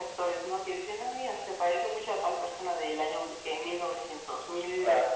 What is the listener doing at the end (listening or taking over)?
listening